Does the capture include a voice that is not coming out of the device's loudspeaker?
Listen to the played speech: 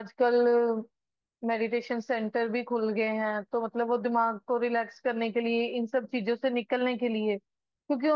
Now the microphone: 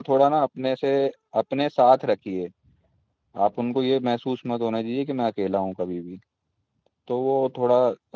Yes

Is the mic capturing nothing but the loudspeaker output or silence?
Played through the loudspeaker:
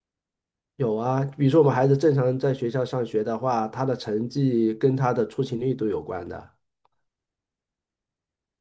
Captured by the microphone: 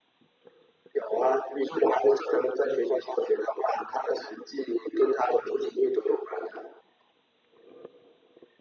Yes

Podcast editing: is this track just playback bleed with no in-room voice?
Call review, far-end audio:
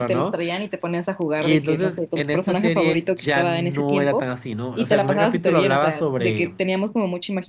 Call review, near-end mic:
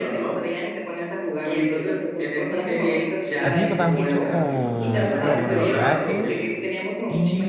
No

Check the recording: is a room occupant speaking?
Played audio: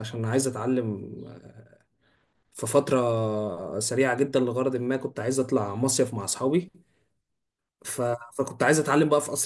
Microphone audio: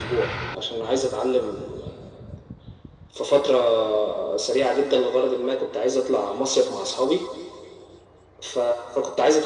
No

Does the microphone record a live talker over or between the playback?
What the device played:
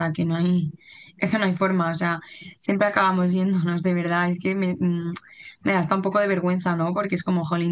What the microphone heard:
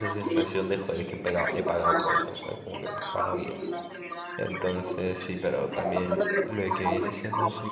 Yes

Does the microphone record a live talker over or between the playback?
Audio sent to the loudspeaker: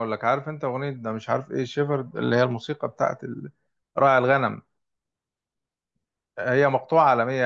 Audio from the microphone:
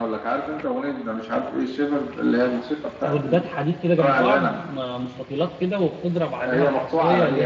Yes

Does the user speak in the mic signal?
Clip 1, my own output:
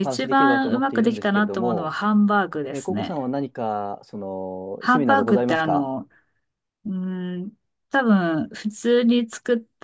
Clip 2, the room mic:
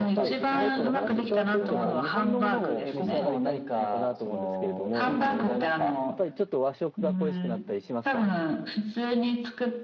Yes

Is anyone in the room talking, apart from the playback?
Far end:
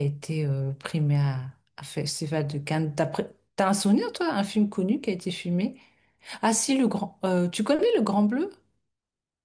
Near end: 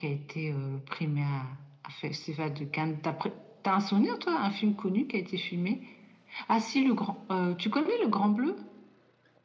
No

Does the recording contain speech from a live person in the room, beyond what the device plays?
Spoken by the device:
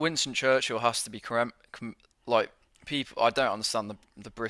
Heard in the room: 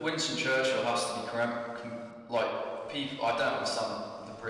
No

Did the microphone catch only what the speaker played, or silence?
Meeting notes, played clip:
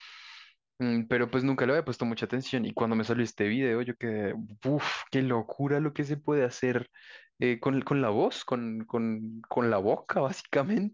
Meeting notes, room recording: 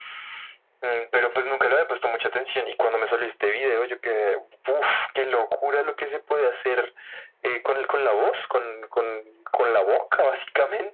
Yes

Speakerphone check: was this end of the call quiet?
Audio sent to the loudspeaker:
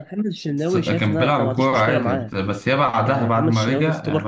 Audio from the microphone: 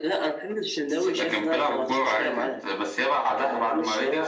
Yes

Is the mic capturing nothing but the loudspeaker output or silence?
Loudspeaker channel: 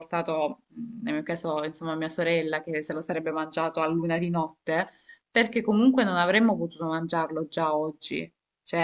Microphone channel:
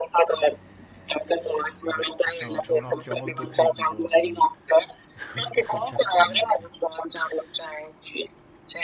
No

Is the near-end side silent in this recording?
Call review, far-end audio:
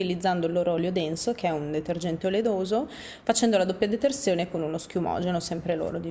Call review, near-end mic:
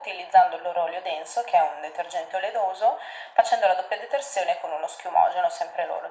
Yes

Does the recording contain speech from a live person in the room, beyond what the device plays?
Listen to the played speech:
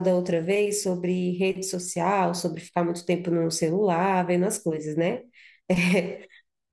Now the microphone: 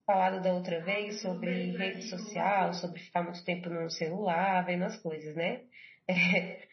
Yes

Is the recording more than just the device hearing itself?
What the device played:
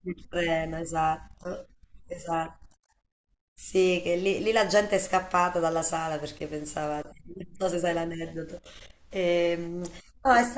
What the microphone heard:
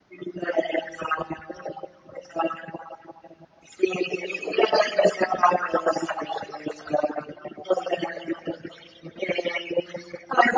No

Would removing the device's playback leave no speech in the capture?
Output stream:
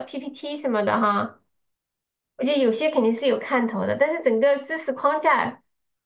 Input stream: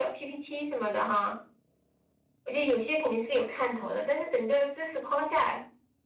Yes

